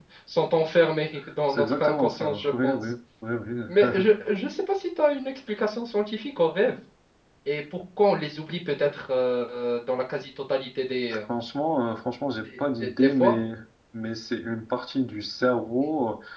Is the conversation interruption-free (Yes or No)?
No